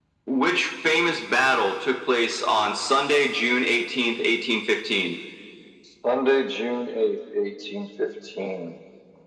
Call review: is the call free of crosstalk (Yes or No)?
Yes